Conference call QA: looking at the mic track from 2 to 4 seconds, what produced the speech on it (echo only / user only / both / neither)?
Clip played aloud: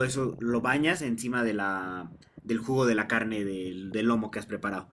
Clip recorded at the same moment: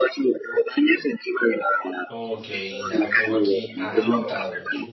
both